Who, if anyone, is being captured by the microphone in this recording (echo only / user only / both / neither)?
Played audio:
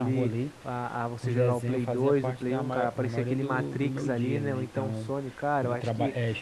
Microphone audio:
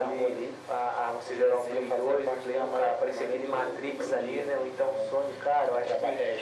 echo only